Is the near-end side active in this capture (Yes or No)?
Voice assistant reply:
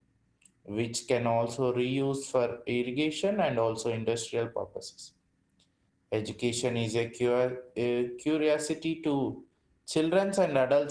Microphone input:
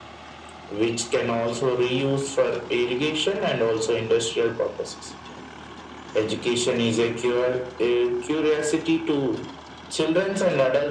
No